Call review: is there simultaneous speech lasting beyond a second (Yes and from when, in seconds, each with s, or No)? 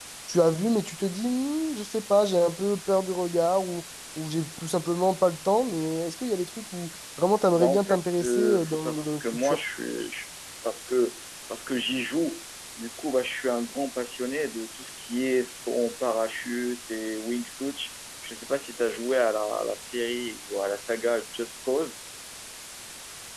Yes, from 7.5 s